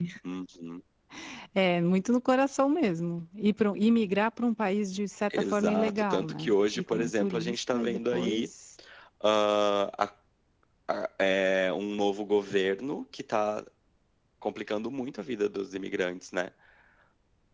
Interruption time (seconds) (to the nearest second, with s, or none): 5 s